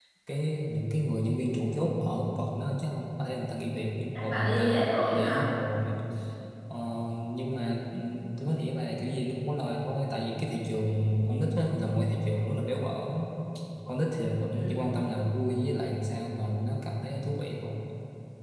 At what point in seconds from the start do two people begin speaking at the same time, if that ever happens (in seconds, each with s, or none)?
4.2 s